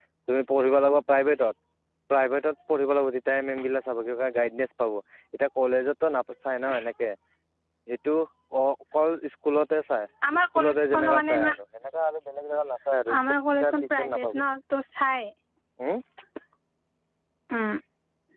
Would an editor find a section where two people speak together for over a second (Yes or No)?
Yes